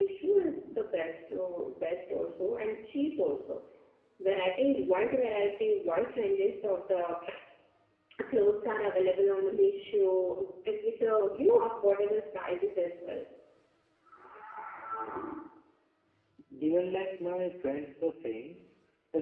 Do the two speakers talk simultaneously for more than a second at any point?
No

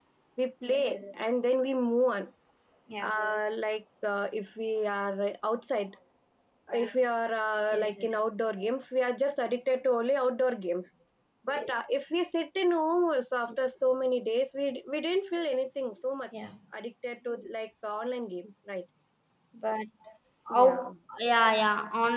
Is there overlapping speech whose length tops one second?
No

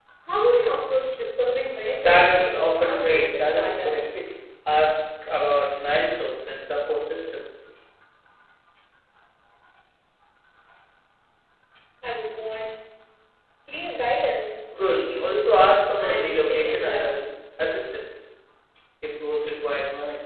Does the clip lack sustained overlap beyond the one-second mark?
No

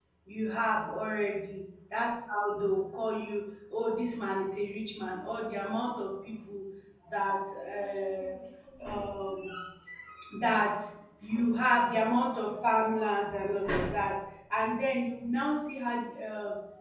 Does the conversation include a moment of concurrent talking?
No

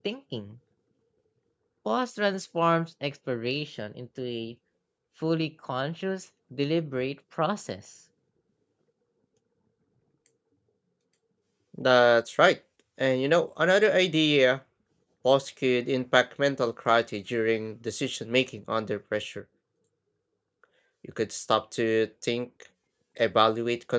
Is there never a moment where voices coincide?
Yes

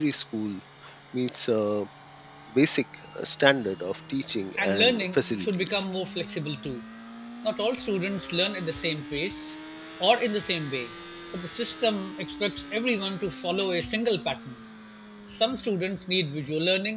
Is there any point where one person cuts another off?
Yes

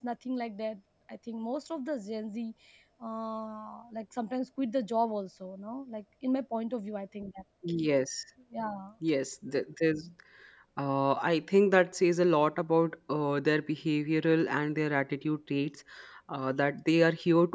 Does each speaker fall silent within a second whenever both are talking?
Yes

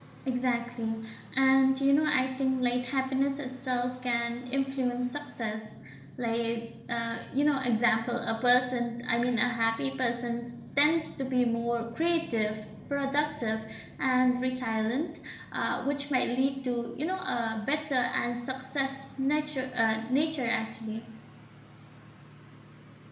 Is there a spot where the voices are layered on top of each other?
No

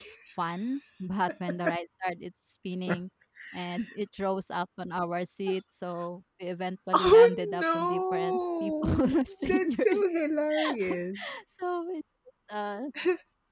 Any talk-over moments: Yes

